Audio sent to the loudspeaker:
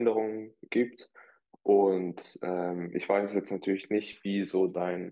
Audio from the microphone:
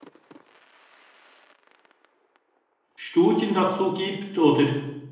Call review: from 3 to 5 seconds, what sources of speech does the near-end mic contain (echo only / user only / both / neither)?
user only